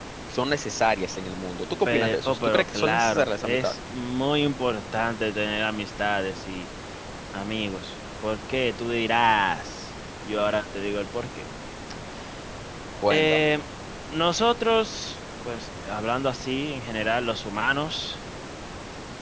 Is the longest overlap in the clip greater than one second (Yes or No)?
Yes